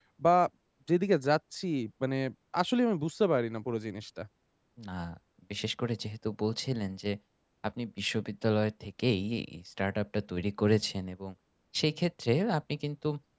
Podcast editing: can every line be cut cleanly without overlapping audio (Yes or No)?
Yes